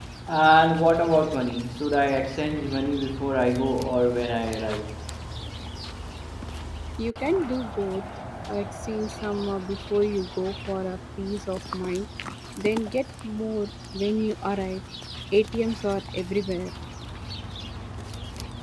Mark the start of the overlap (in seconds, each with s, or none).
none